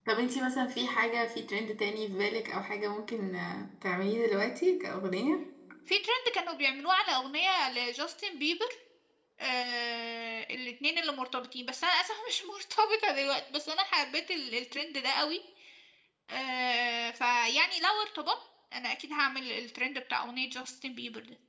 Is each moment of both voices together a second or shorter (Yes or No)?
Yes